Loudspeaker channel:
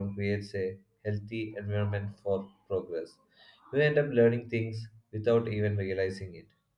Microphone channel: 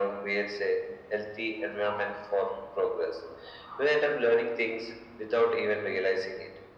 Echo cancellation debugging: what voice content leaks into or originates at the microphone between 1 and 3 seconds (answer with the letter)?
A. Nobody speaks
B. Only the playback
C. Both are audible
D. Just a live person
B